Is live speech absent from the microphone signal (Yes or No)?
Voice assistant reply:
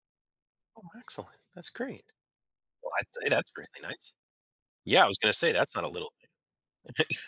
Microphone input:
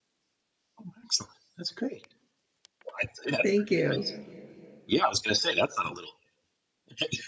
No